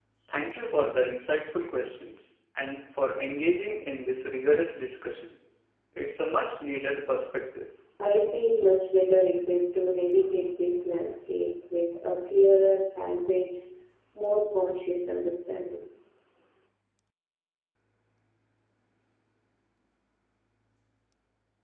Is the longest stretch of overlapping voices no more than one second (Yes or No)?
Yes